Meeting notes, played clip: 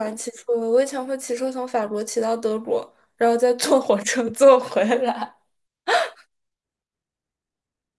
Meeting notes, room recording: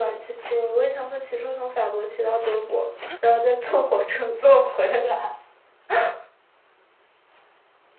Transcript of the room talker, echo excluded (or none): none